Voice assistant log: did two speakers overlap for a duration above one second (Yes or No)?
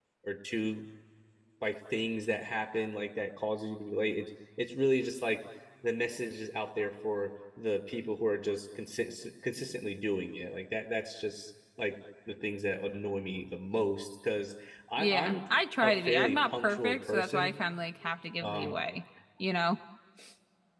Yes